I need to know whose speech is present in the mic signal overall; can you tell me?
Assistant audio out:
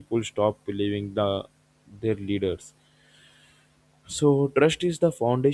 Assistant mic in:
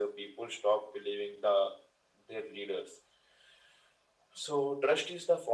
echo only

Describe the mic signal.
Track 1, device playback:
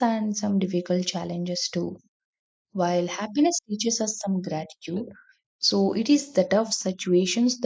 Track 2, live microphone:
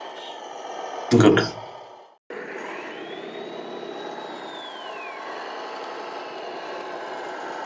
user only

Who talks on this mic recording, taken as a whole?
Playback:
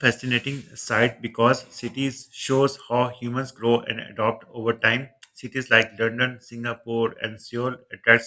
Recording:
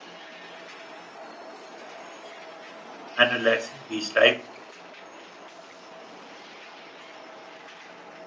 user only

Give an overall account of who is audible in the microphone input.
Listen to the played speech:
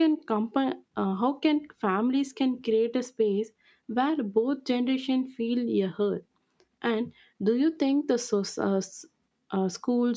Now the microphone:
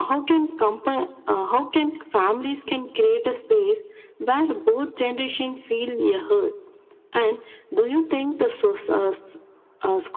echo only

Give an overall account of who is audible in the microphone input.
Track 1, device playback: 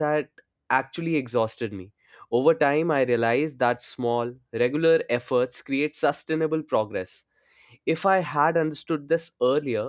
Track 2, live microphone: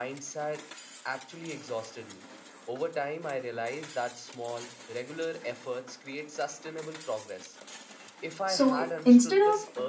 both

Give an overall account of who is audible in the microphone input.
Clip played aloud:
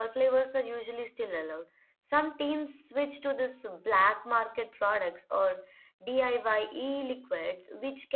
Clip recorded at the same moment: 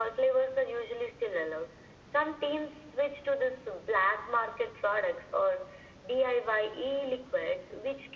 echo only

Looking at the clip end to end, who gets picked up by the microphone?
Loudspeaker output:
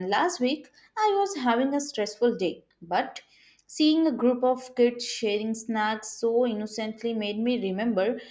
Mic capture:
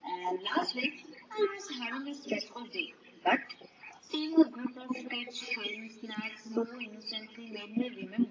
echo only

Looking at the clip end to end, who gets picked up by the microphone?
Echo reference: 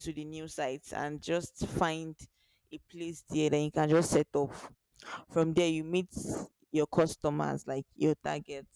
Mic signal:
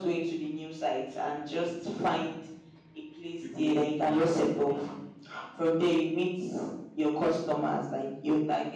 both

